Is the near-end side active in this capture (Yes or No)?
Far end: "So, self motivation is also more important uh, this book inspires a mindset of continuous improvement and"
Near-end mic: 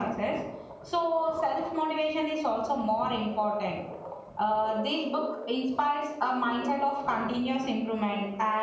No